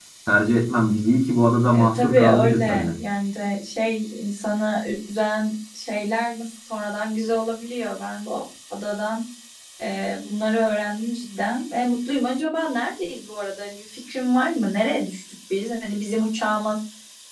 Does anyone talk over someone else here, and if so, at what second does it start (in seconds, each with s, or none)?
1.7 s